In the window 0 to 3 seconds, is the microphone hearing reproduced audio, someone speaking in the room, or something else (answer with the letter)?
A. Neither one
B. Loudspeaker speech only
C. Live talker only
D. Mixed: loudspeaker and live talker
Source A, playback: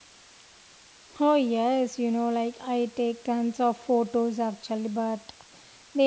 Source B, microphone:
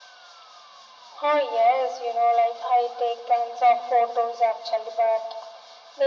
B